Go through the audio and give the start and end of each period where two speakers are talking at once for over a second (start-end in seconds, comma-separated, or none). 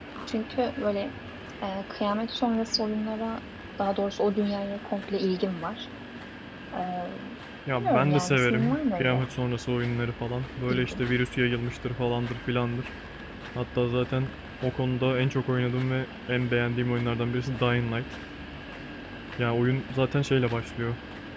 7.8-9.2